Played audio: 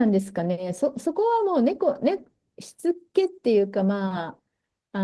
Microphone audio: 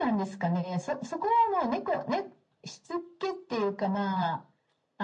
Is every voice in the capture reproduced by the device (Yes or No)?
Yes